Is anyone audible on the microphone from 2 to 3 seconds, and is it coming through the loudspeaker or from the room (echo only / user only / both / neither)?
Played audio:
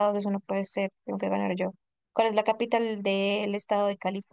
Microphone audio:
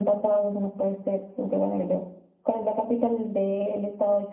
echo only